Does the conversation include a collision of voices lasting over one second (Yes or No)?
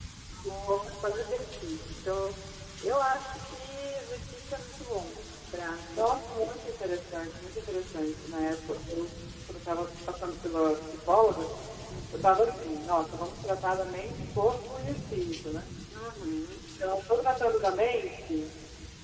No